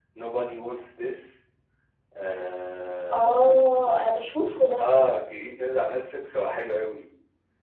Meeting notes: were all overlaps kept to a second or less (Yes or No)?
Yes